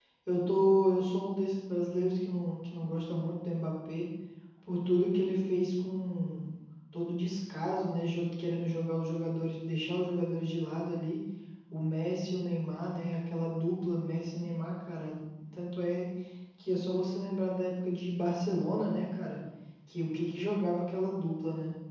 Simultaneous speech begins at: none

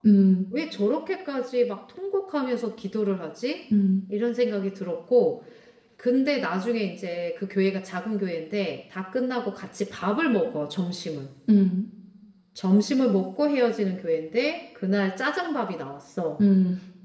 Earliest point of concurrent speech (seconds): none

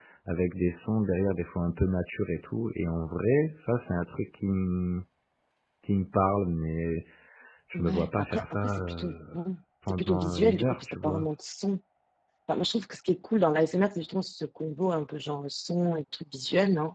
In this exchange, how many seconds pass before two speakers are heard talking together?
7.7 s

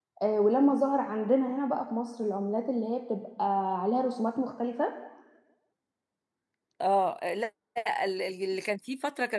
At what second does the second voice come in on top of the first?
none

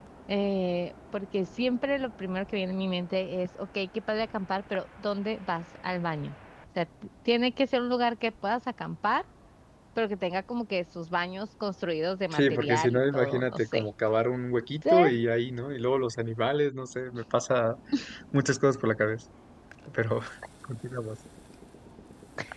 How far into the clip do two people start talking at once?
12.3 s

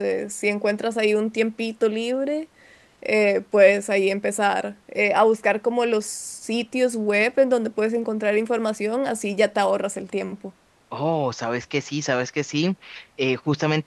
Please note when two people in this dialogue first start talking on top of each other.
none

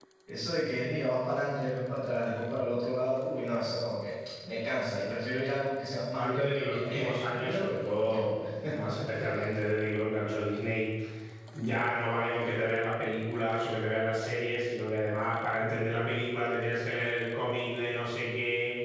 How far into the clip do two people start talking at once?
6.2 s

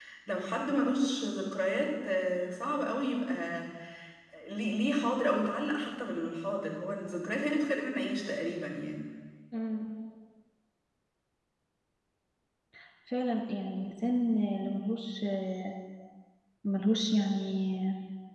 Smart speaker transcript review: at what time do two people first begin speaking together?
none

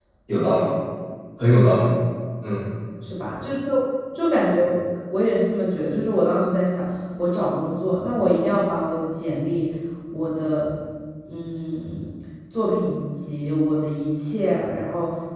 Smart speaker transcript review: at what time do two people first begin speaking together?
none

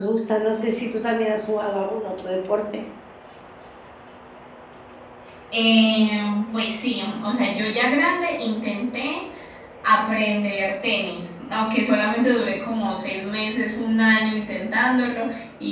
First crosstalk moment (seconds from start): none

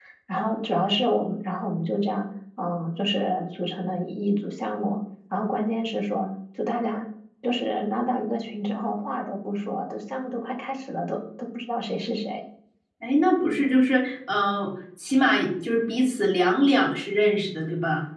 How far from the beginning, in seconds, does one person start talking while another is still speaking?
none

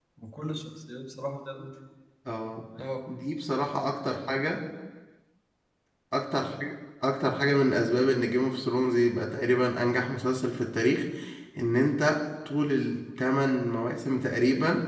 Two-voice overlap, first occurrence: none

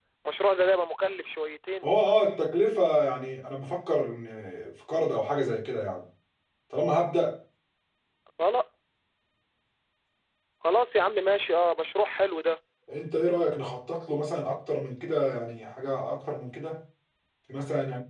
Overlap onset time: none

